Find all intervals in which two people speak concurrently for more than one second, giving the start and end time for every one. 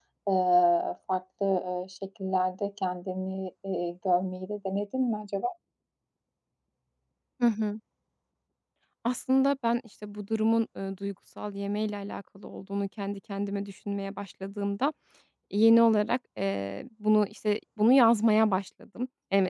none

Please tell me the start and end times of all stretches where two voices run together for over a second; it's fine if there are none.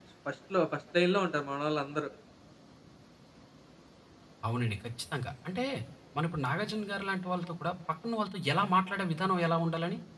none

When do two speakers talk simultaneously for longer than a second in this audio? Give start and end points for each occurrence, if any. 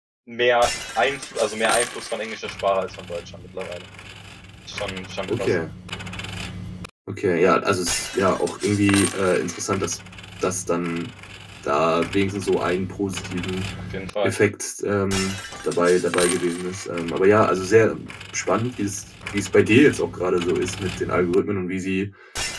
none

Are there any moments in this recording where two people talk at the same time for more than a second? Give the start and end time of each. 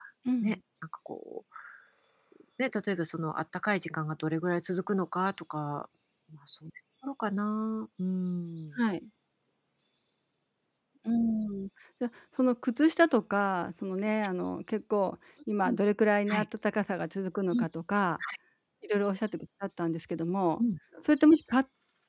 none

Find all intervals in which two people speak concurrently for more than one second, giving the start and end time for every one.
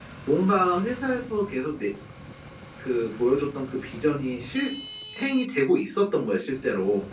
none

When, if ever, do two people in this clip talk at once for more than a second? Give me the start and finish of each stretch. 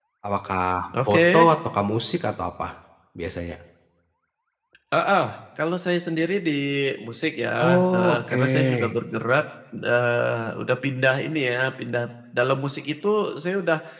7.6-8.9

